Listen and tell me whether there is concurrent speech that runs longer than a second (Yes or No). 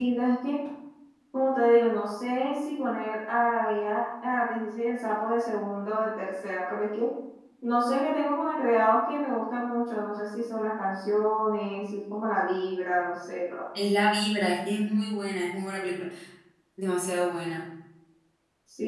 No